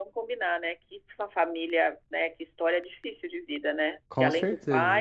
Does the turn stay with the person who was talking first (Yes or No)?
Yes